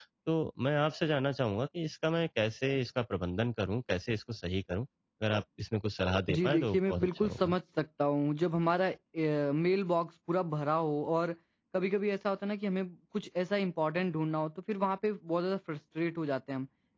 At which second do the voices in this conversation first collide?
6.3 s

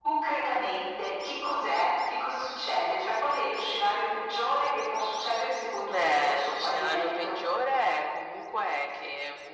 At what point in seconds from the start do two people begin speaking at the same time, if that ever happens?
5.8 s

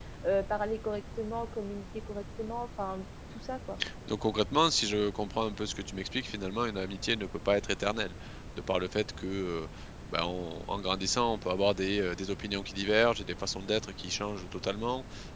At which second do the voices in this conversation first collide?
none

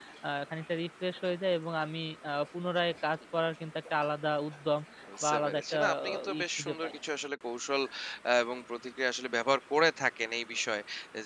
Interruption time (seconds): 5.2 s

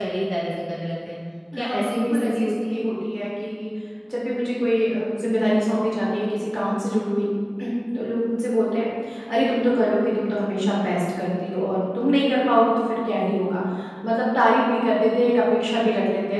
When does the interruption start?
1.5 s

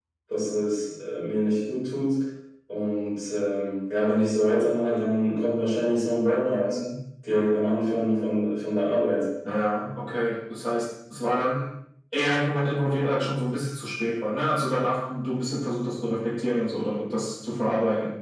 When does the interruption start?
none

